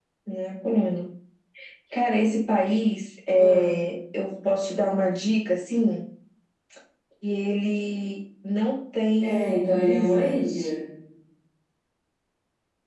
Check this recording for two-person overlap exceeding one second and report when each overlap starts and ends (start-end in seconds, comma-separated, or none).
9.2-10.6